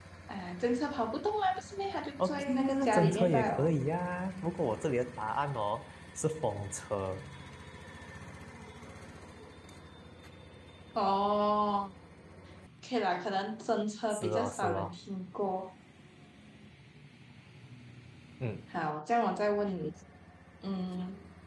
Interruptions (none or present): present